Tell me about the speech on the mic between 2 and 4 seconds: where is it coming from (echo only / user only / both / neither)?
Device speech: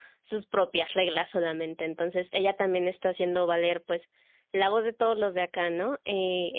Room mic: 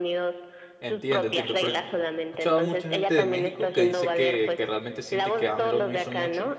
both